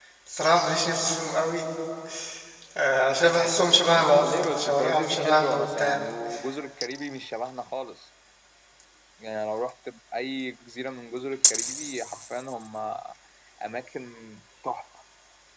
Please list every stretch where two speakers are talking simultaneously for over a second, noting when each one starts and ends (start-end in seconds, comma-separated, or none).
4.2-6.0